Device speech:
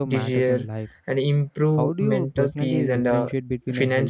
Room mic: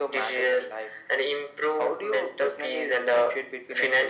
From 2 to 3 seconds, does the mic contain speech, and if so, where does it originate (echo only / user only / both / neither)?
echo only